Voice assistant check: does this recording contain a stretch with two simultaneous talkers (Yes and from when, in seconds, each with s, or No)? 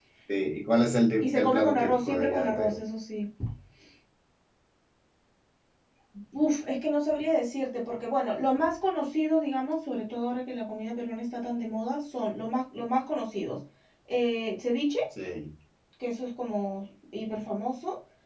Yes, from 1.2 s